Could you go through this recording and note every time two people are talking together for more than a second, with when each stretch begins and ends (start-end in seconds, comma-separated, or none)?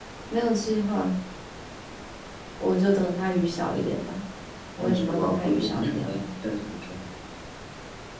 4.8-6.3